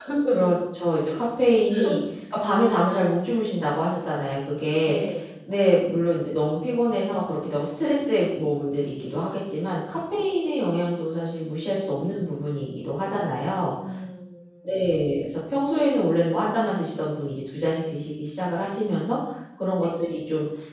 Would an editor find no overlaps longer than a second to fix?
Yes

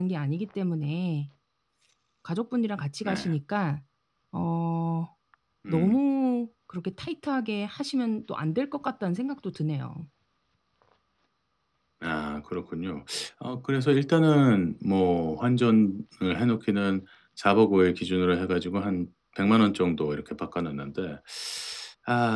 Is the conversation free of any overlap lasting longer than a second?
Yes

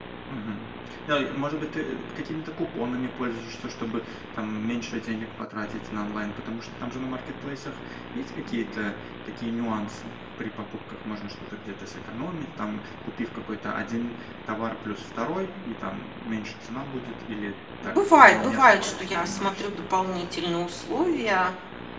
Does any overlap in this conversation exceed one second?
Yes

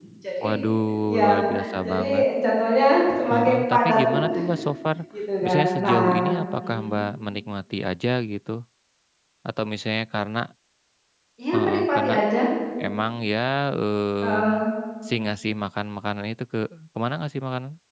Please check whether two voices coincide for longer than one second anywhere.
Yes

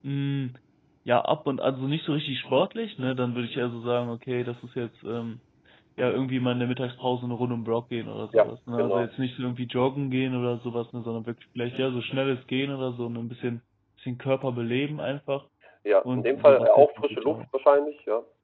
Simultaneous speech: Yes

